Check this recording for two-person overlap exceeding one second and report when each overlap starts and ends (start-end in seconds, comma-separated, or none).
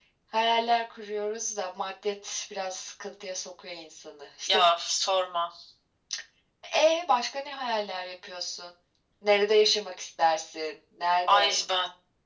none